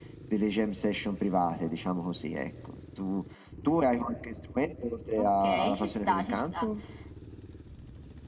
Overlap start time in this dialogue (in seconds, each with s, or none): 5.2 s